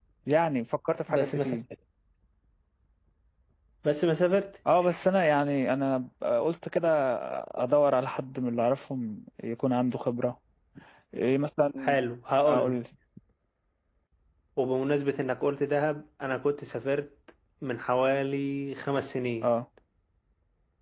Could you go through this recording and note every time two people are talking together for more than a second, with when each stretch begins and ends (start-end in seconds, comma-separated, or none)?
none